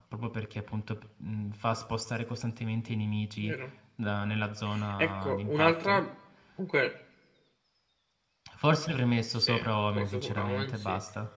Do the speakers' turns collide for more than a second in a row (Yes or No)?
Yes